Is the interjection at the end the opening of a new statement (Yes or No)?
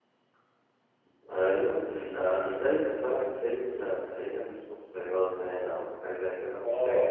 Yes